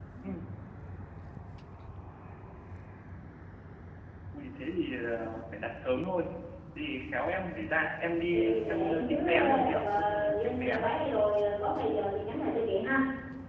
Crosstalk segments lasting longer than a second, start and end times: 8.3-10.9

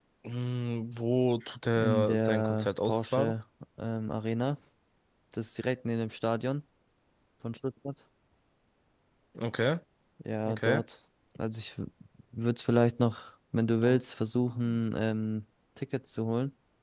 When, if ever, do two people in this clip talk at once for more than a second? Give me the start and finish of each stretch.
1.8-3.3

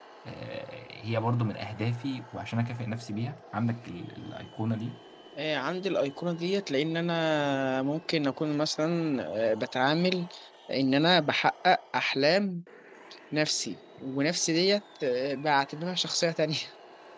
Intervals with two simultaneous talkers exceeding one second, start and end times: none

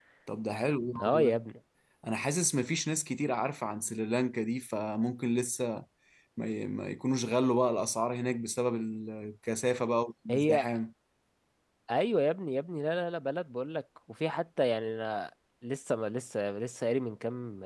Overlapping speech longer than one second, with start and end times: none

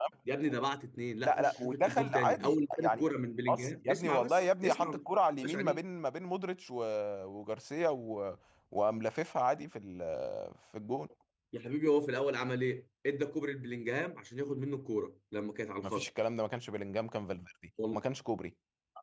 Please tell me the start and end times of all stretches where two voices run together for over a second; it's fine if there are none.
1.2-3.0, 3.5-5.0

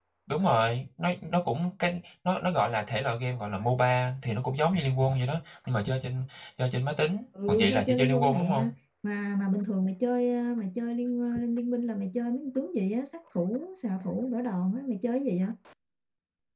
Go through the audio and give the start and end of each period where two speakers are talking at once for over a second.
7.5-8.7

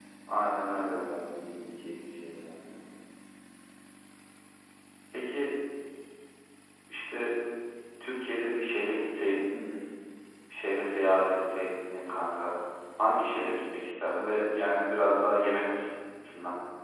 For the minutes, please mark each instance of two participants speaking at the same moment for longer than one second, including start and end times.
none

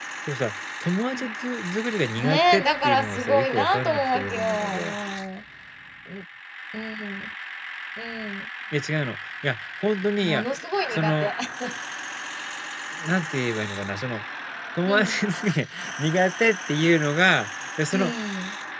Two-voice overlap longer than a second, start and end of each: 2.2-4.8

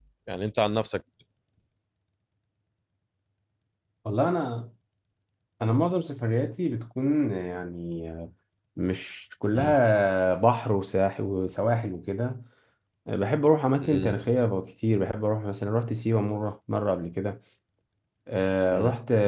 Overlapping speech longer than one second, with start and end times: none

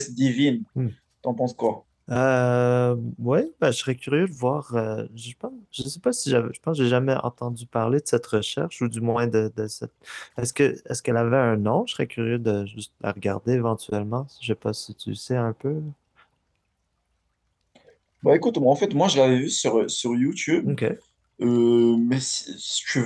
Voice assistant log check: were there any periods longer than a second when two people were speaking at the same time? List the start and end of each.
none

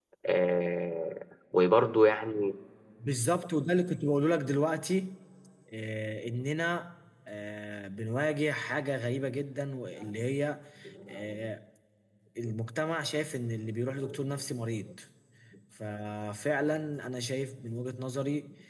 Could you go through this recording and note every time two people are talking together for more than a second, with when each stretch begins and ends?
none

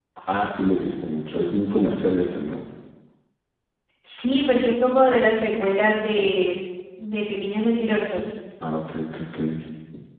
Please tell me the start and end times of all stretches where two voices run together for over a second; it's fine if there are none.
none

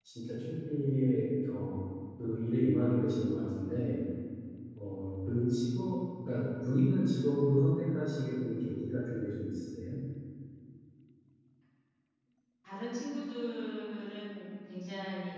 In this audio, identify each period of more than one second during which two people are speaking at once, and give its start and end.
none

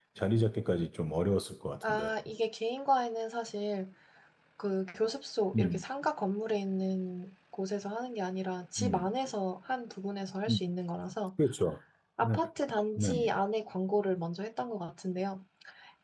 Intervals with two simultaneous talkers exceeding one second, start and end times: none

